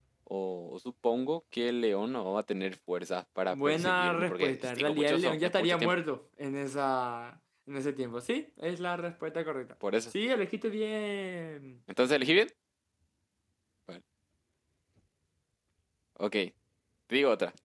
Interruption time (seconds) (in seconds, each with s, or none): 3.5 s